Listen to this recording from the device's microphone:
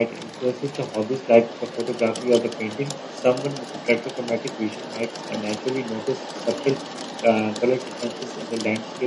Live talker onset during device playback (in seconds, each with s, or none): none